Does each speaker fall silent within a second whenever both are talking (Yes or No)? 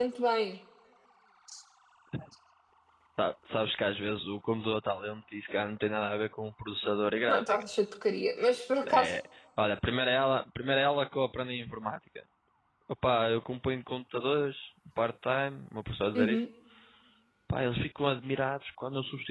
Yes